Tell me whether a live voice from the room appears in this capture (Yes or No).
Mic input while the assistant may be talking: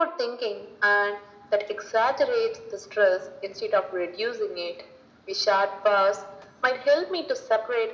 No